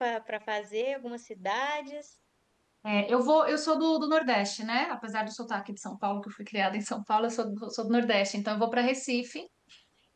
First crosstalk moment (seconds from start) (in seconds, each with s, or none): none